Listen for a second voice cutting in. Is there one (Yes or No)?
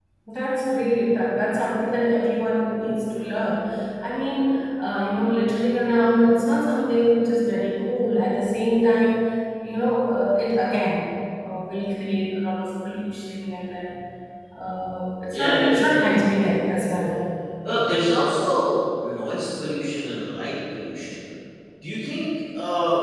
Yes